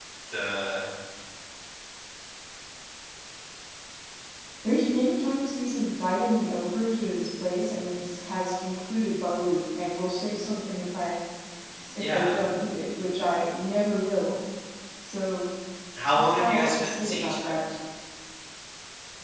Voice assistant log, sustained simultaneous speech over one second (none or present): present